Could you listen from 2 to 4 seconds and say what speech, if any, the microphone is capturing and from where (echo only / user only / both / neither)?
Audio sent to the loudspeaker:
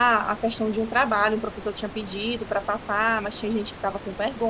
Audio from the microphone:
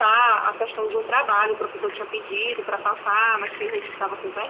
echo only